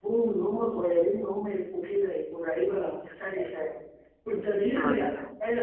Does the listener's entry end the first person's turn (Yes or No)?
No